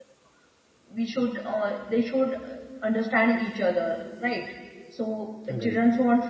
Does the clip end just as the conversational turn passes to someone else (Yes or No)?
No